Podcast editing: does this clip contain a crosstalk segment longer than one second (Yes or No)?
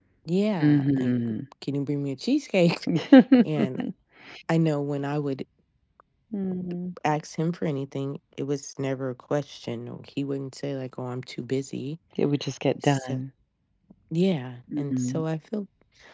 No